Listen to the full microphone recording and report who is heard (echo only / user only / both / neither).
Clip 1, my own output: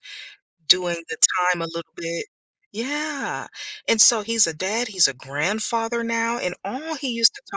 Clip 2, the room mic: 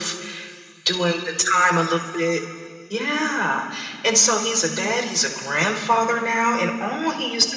echo only